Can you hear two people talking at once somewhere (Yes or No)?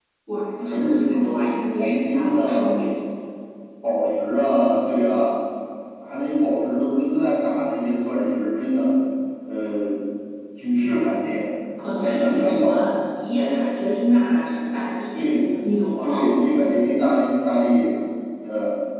Yes